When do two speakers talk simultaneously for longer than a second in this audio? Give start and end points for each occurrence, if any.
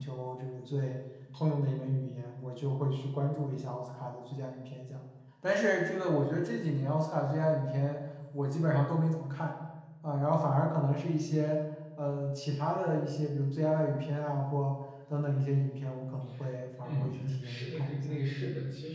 16.8-18.2

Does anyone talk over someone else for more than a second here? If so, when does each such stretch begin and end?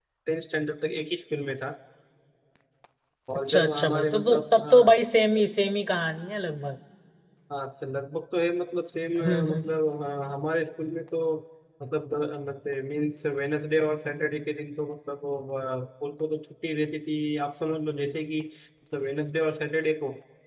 3.5-4.9

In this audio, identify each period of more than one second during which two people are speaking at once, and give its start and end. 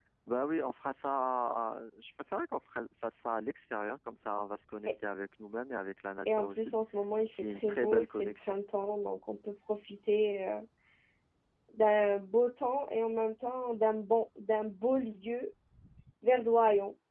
7.3-8.5

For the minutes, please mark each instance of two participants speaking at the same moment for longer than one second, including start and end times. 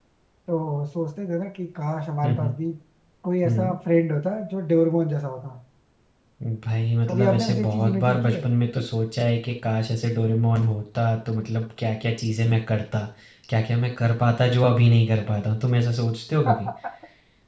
7.1-8.4

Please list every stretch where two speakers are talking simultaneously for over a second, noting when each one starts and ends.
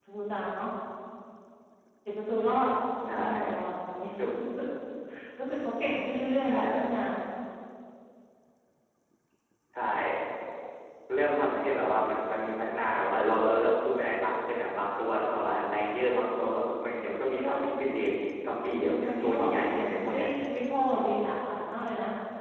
18.8-20.3

